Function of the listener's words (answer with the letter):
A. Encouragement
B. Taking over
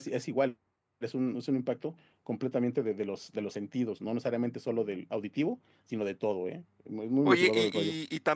B